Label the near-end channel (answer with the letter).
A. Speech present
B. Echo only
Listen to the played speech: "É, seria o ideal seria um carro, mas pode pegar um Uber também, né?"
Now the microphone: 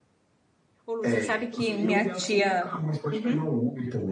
A